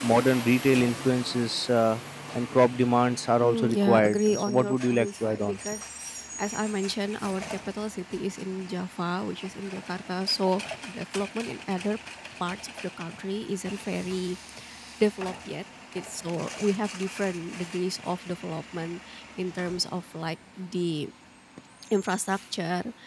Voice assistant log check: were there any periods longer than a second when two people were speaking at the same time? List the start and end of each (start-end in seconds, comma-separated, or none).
3.4-5.6